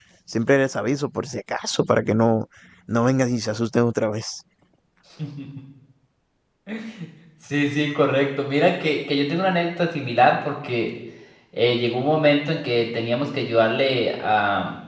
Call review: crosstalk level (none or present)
none